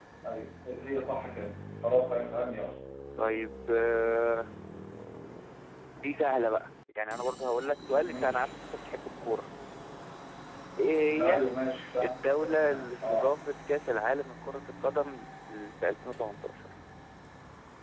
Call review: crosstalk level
present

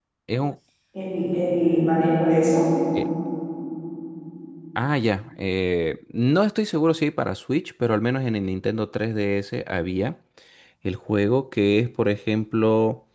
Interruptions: none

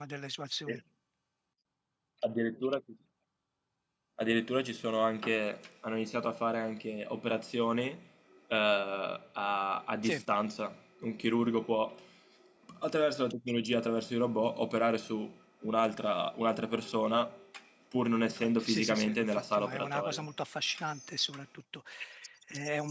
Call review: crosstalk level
present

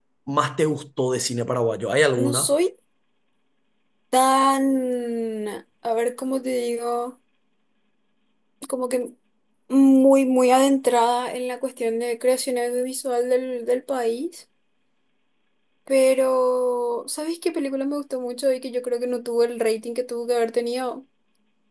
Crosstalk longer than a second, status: none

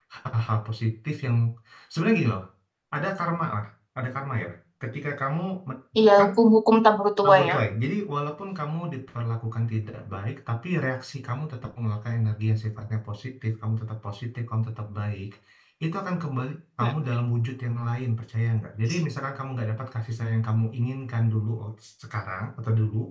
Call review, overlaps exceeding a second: none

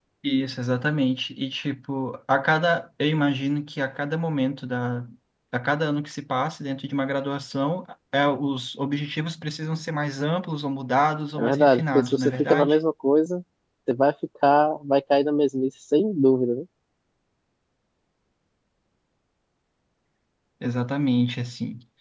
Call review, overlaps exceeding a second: present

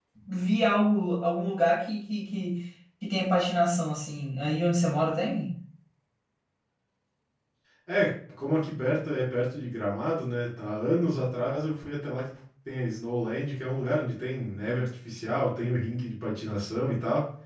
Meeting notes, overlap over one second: none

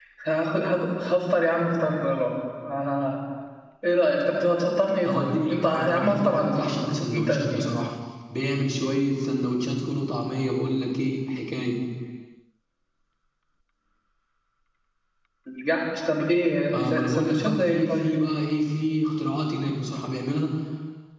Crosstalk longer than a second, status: present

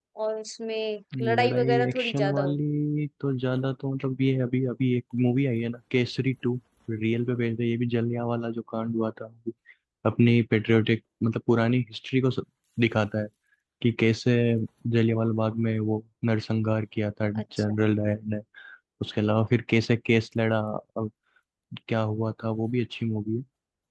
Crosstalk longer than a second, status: present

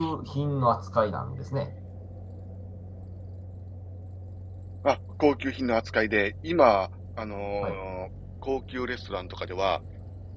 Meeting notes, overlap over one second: none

